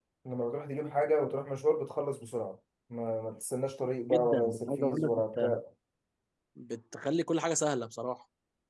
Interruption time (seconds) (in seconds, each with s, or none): 4.1 s